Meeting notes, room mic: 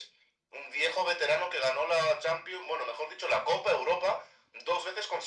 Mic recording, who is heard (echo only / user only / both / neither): echo only